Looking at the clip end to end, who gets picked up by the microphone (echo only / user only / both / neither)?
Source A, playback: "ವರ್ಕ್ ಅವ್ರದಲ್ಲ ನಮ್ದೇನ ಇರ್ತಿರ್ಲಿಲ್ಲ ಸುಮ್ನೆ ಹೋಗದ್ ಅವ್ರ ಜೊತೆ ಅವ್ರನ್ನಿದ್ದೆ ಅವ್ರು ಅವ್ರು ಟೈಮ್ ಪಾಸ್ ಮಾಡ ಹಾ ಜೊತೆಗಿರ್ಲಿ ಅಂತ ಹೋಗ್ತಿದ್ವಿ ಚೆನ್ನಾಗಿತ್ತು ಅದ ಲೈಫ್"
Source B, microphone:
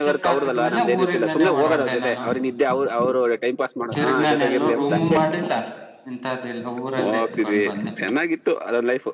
both